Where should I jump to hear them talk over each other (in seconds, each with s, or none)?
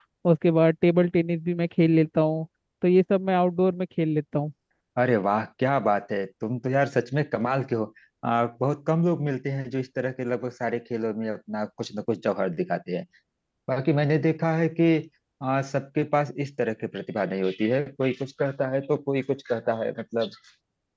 none